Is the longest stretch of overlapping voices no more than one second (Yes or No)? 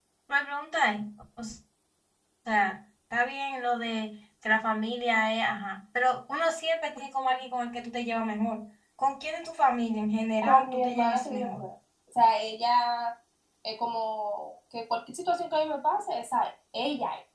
No